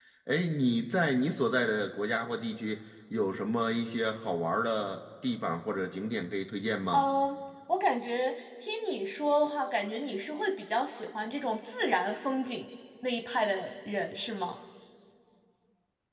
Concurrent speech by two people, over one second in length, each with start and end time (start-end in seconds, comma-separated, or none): none